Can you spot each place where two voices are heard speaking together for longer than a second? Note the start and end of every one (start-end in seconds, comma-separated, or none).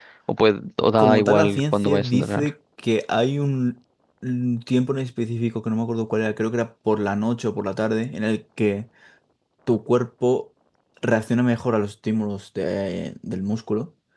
1.0-2.5